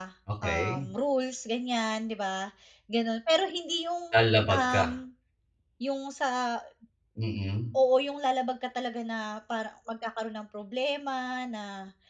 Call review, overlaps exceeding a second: none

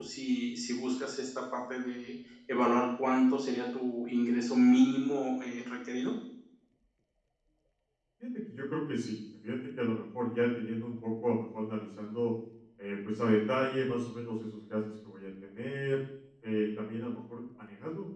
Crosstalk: none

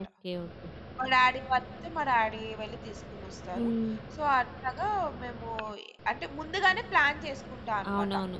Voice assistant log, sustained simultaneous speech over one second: none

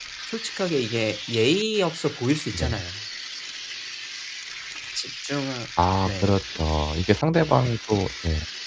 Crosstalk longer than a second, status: none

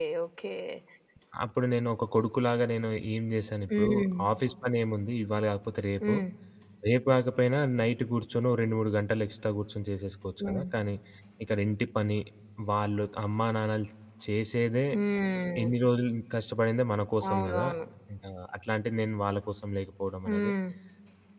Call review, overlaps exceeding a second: none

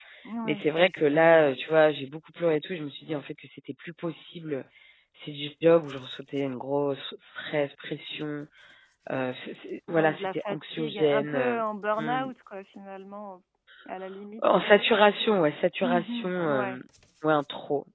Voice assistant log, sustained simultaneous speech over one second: present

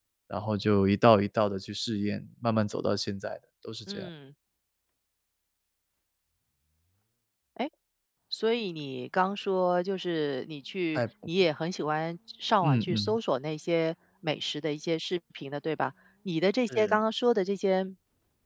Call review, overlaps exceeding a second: none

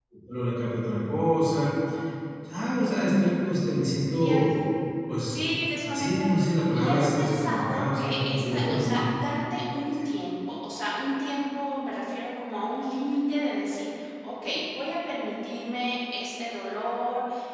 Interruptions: present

